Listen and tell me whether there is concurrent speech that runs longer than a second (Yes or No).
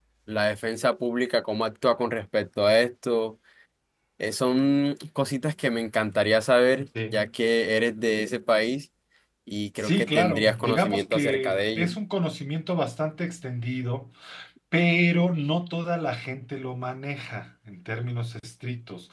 Yes